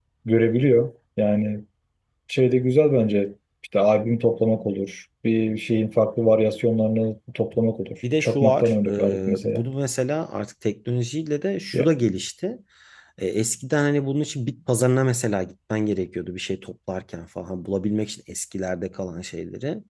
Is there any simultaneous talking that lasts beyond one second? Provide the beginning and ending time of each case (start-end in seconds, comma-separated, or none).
8.2-9.6